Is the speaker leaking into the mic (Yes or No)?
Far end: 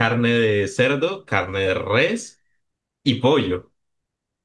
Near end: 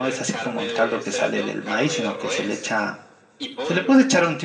Yes